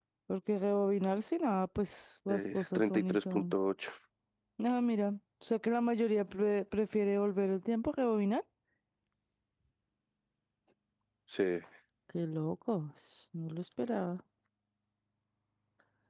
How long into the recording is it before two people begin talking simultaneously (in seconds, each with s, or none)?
2.3 s